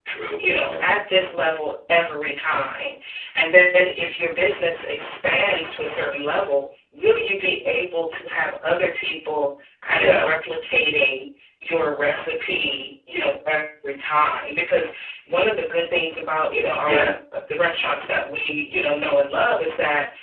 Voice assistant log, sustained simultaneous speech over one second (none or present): none